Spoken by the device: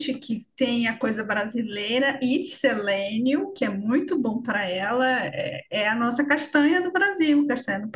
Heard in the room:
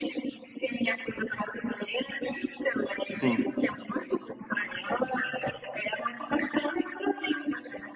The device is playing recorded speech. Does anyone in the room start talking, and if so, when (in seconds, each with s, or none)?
3.1 s